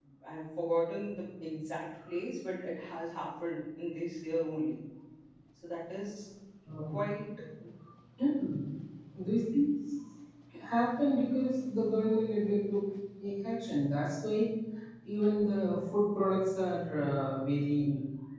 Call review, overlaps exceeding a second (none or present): none